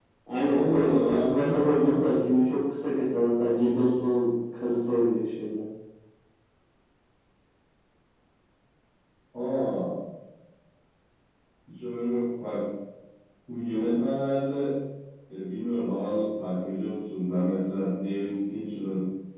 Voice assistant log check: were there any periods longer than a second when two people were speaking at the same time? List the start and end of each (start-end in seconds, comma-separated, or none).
0.5-1.9